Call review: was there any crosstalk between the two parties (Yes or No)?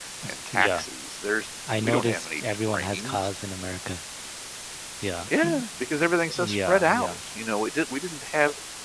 Yes